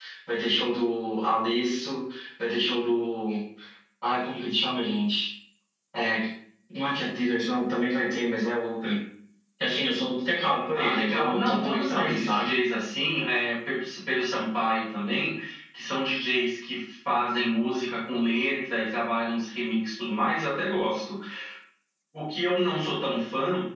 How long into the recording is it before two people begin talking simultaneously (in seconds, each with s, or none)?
10.7 s